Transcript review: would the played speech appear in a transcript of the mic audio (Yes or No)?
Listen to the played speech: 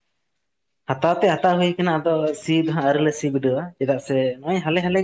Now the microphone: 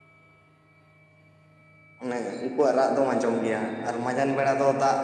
No